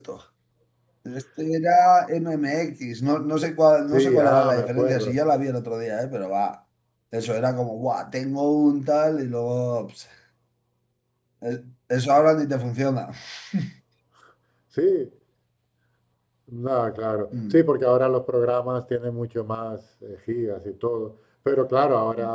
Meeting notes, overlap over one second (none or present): present